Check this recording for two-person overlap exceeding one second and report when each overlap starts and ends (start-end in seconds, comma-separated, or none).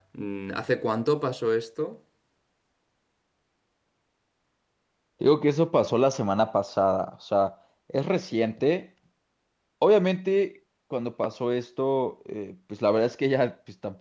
none